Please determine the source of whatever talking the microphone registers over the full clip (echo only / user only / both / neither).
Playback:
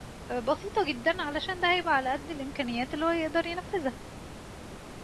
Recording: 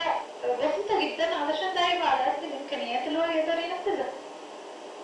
echo only